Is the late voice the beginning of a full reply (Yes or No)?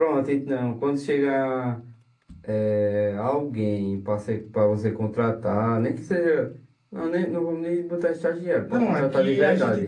Yes